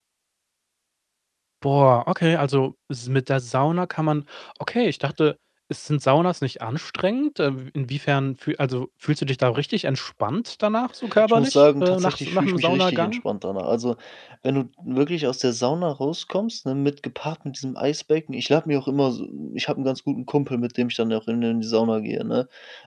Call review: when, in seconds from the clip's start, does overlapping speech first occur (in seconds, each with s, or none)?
11.1 s